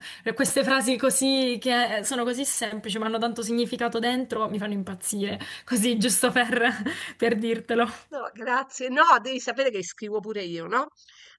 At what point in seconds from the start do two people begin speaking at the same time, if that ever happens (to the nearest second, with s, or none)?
none